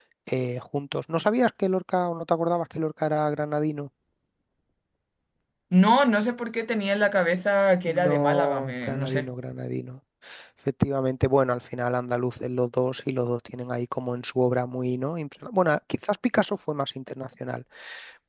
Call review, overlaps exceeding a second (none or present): present